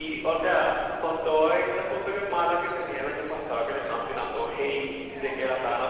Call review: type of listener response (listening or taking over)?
listening